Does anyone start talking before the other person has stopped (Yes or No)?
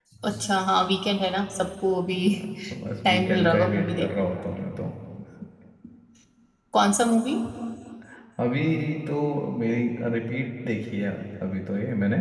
Yes